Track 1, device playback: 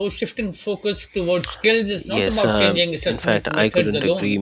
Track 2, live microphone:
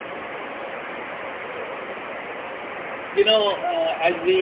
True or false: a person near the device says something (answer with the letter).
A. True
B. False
A